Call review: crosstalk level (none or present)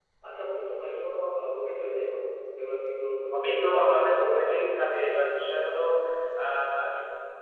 present